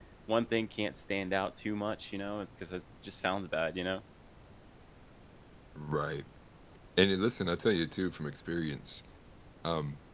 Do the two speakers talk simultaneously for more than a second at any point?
No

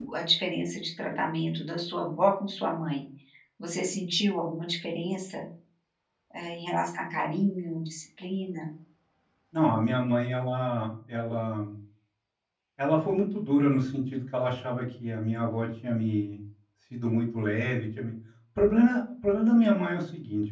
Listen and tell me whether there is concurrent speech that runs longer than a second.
No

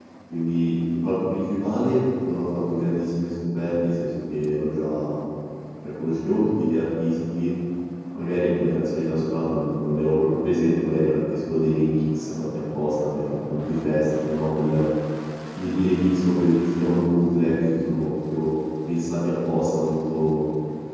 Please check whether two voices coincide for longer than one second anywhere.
No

